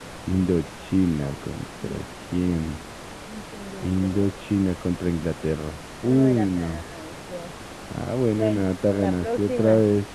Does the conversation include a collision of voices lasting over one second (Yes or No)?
Yes